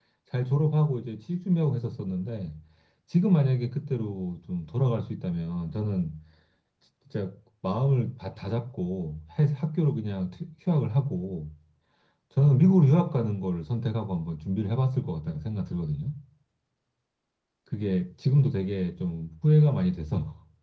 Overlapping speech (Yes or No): No